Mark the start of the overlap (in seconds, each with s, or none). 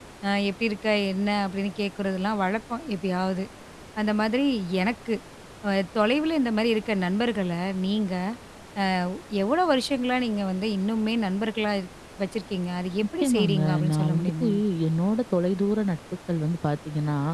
13.2 s